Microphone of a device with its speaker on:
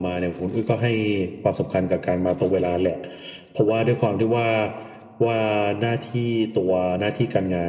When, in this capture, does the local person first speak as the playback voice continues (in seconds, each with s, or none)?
none